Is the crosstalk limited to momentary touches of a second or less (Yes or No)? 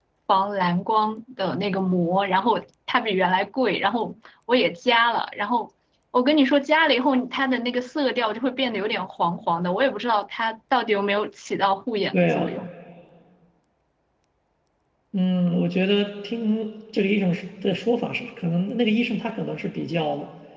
Yes